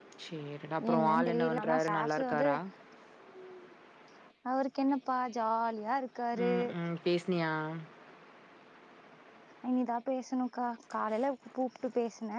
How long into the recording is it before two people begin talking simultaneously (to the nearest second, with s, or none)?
1 s